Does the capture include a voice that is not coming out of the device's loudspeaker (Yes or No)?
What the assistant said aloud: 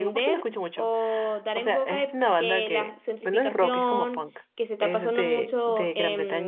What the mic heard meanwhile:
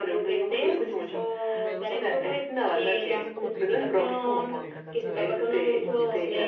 Yes